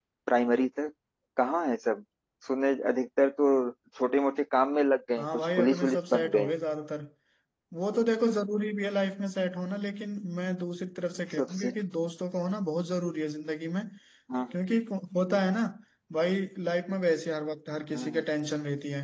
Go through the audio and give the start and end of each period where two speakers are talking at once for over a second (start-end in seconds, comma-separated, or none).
5.2-6.5